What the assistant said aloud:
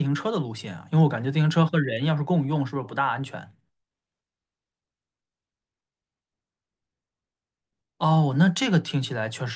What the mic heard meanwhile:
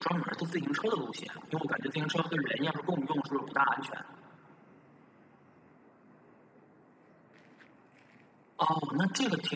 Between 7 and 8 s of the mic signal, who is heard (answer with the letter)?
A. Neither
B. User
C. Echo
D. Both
A